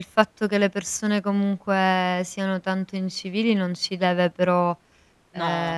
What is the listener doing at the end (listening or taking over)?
listening